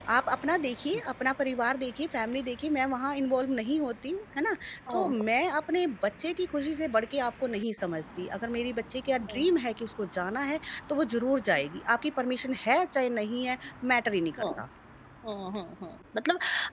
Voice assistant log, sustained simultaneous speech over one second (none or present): none